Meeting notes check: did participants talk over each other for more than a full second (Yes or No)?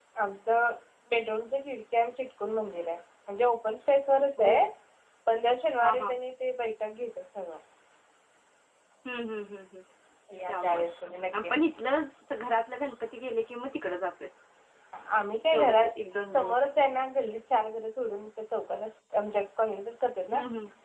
No